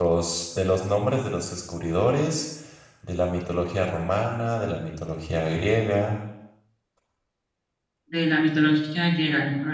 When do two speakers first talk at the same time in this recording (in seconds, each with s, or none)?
none